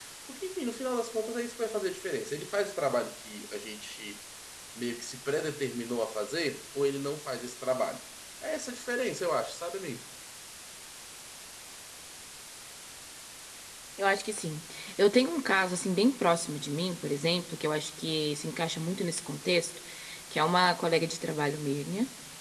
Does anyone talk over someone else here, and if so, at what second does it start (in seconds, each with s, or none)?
none